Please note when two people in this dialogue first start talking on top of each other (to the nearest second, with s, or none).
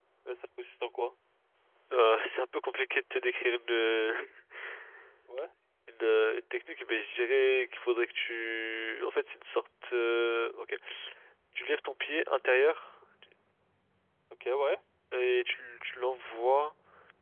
none